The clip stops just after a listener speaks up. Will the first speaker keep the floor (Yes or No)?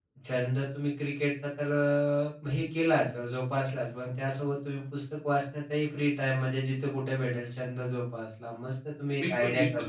No